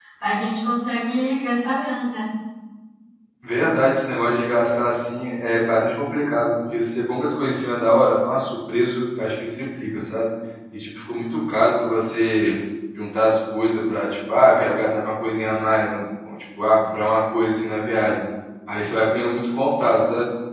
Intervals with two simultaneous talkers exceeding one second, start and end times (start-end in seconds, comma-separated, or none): none